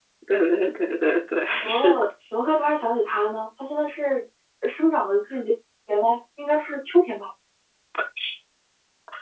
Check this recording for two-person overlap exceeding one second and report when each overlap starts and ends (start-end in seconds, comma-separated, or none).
none